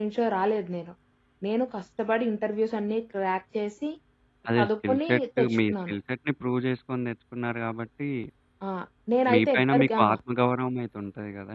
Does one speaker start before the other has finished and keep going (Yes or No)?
Yes